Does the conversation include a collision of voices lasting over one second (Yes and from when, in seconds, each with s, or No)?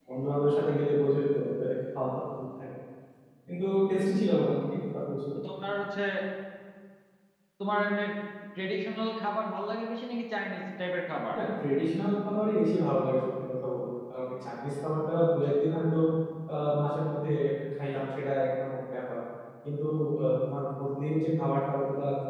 No